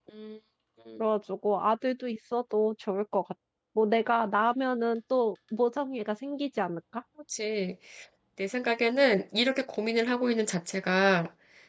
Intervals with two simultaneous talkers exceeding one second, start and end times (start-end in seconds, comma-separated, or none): none